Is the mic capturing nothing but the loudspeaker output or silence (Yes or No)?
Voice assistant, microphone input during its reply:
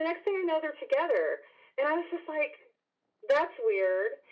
Yes